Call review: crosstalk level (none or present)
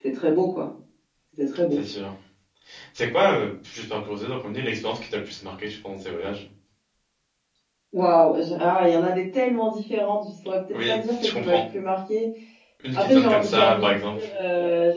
present